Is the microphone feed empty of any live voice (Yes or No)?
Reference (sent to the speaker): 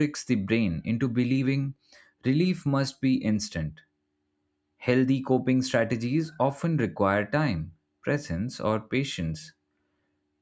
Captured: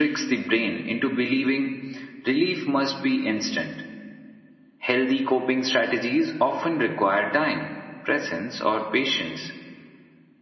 Yes